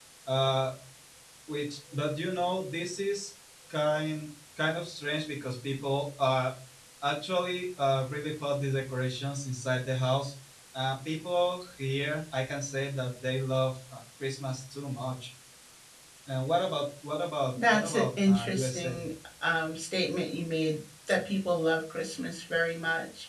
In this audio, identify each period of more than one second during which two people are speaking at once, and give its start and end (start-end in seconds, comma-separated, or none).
17.7-19.0